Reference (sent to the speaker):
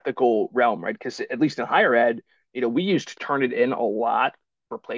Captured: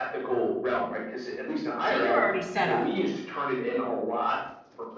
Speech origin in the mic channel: both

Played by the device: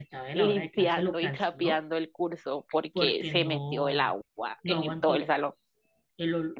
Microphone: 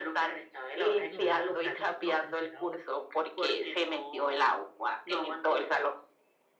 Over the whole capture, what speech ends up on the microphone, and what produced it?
both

